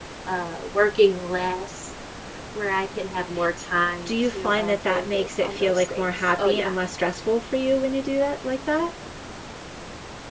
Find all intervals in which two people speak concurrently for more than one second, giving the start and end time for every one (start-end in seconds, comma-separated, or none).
4.1-6.7